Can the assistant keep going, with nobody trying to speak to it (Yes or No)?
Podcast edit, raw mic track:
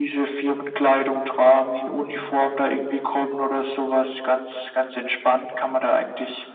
Yes